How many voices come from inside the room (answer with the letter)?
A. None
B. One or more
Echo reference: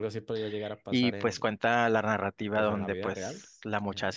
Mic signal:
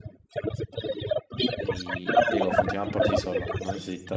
B